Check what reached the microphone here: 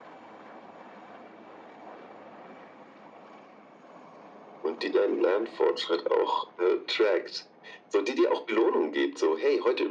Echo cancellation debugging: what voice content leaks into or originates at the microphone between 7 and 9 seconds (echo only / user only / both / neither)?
echo only